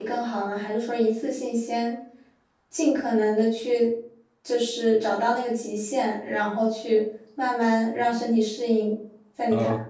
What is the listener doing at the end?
taking over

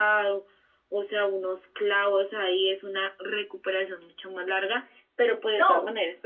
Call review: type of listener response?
listening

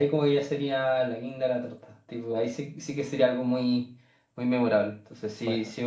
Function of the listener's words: listening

